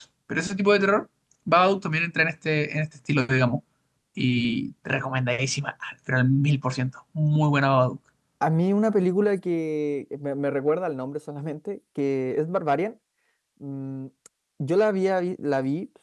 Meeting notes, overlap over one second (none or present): none